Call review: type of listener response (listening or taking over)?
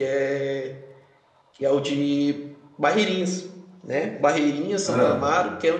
listening